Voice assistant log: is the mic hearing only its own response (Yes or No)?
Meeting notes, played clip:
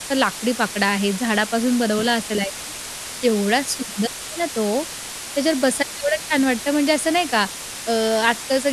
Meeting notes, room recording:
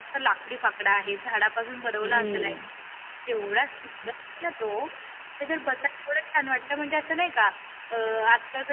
No